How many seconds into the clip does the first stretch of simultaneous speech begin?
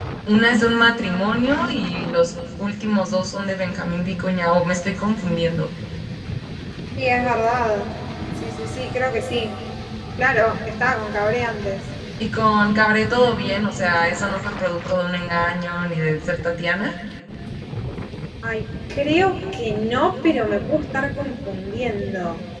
none

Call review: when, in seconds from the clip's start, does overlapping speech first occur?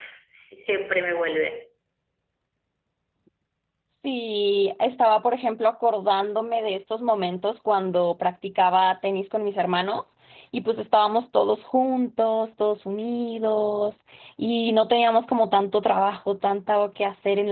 none

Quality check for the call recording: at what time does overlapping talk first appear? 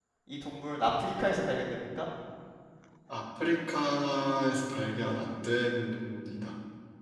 none

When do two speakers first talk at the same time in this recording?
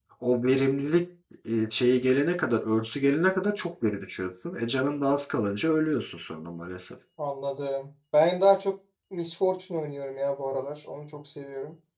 none

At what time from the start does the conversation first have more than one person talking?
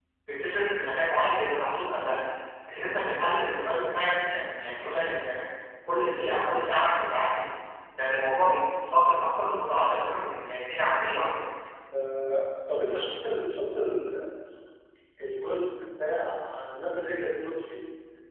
none

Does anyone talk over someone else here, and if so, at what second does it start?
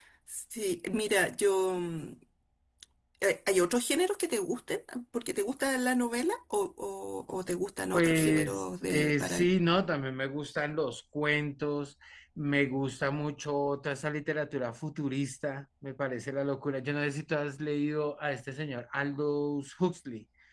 8 s

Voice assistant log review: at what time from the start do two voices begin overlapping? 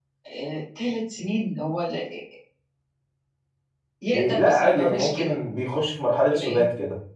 4 s

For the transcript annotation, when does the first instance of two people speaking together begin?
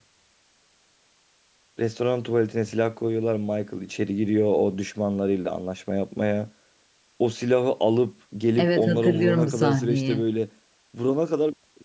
9 s

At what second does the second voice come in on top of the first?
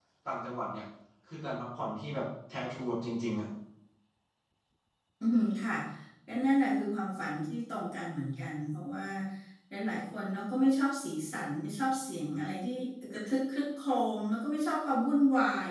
none

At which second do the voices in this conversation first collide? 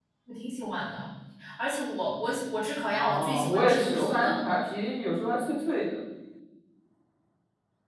3 s

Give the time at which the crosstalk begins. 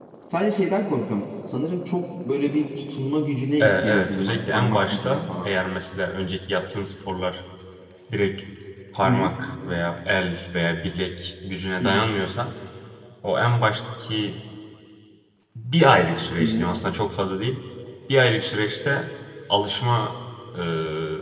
4 s

